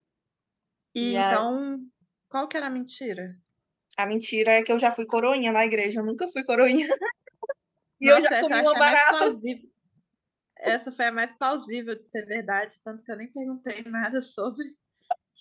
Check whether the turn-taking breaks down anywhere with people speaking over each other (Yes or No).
Yes